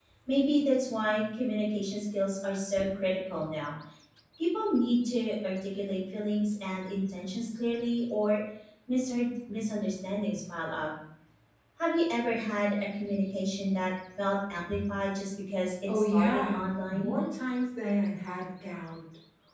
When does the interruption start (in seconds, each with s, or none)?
15.9 s